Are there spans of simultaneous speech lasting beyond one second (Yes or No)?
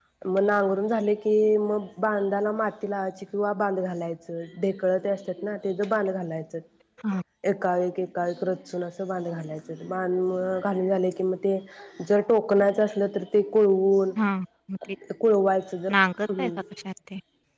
No